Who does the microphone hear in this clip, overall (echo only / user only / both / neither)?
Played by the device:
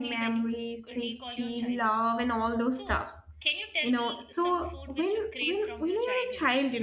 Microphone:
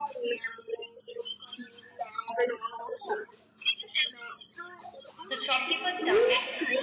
both